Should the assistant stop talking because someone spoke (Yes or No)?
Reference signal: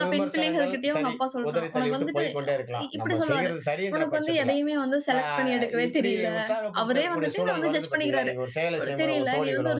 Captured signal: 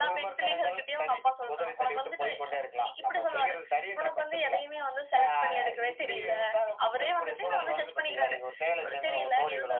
No